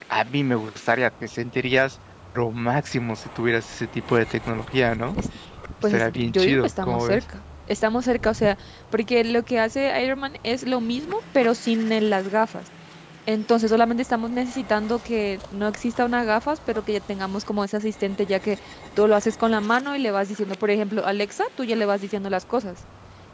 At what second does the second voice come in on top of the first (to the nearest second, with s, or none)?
6 s